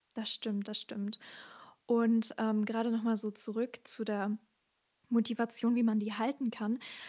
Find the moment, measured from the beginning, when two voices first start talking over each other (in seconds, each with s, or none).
none